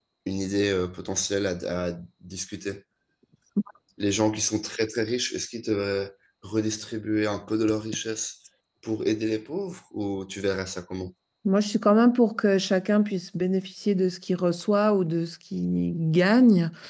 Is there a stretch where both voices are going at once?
No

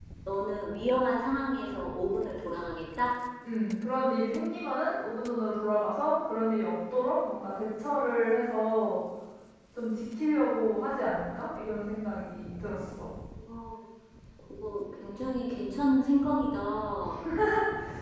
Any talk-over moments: No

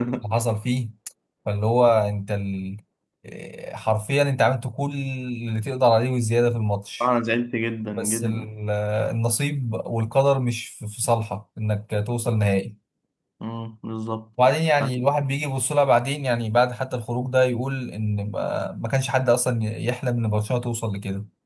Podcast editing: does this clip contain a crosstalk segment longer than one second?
No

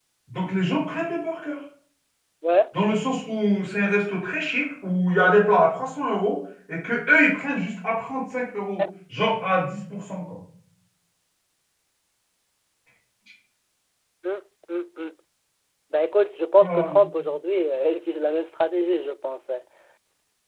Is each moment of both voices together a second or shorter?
Yes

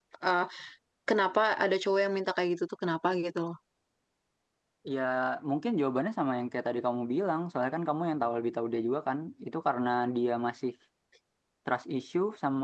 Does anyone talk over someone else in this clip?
No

